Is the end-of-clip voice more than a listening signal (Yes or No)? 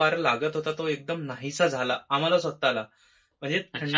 Yes